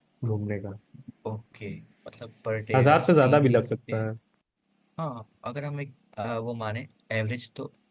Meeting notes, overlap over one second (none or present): present